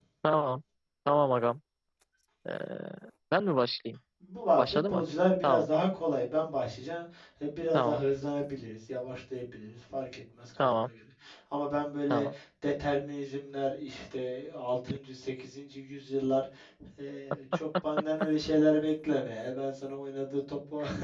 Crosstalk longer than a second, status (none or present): none